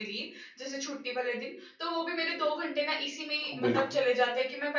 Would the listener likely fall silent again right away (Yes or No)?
Yes